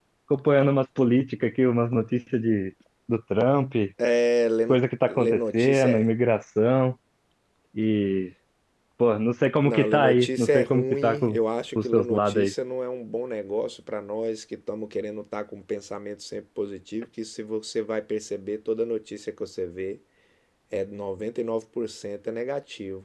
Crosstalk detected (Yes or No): Yes